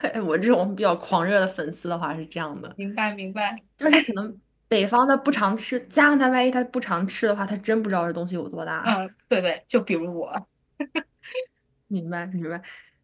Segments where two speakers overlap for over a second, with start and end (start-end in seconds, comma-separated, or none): none